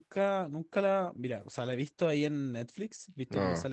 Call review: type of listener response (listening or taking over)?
listening